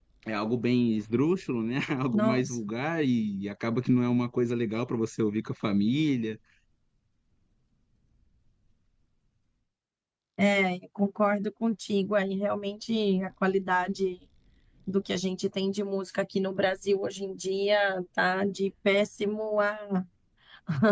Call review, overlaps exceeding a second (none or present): none